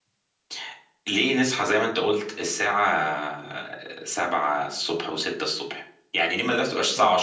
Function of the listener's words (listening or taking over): listening